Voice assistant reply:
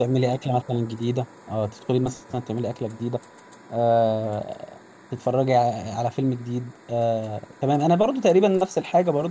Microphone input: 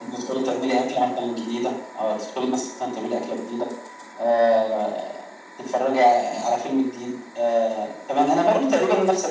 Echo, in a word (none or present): present